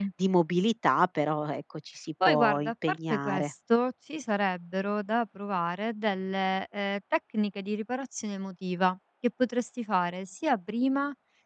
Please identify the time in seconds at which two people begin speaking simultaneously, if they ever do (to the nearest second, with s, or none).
2 s